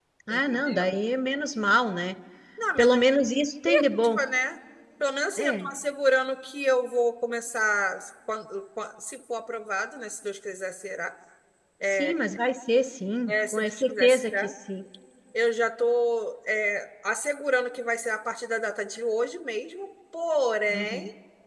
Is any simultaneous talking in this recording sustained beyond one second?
Yes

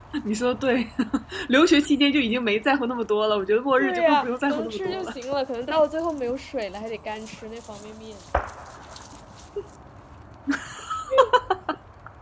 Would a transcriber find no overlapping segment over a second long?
No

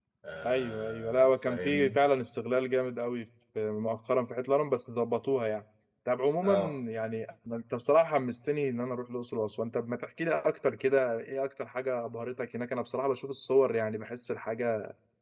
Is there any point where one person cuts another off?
Yes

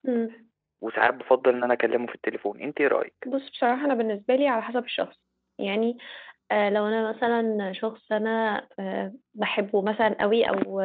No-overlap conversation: Yes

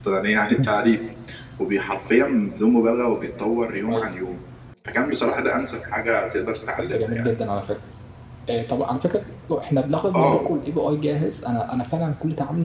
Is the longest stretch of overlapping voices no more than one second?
Yes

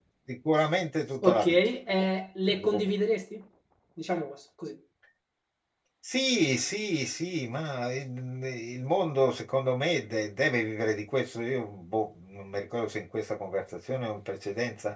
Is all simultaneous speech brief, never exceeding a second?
Yes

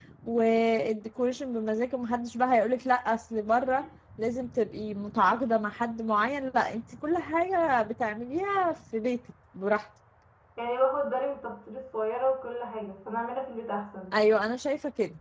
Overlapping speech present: No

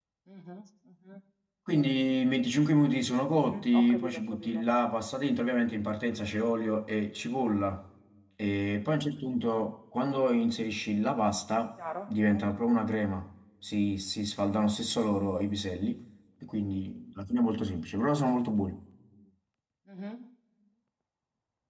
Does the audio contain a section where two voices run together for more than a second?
Yes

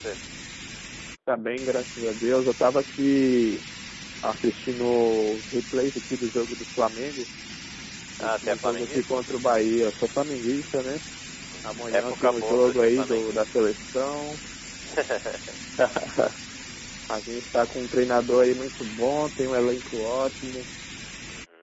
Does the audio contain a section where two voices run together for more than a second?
Yes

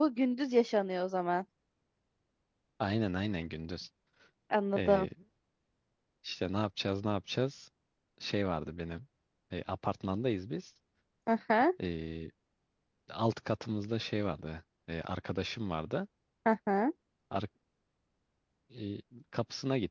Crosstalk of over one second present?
No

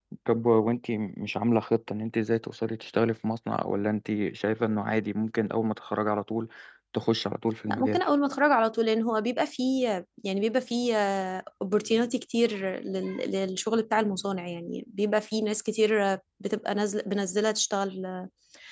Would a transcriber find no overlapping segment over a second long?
Yes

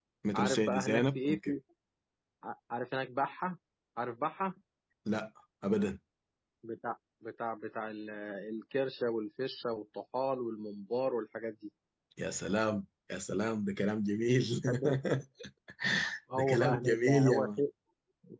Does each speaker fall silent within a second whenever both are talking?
No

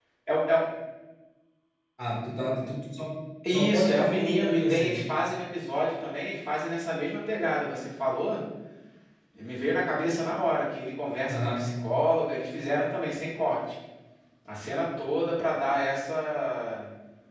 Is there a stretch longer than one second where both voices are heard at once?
Yes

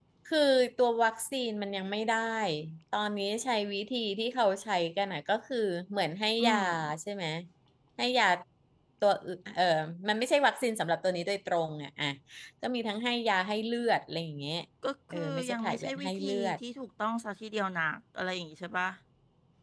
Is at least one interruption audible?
Yes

